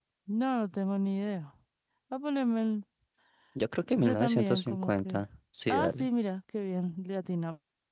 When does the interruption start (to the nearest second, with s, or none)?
4 s